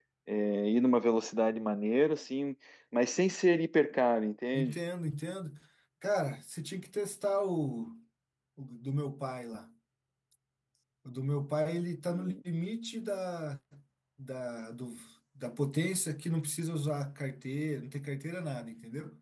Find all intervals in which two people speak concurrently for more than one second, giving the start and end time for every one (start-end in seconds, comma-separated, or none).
none